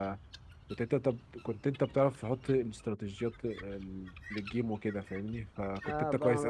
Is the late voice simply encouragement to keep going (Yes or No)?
No